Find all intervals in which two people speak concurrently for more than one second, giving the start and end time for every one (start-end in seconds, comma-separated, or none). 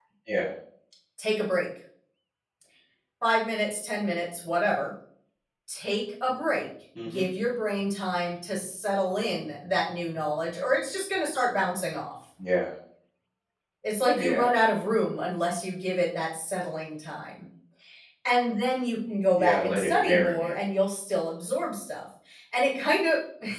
19.4-20.6